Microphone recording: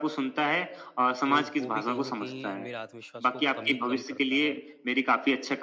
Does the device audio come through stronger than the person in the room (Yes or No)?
Yes